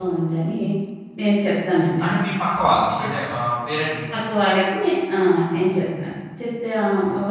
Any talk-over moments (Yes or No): No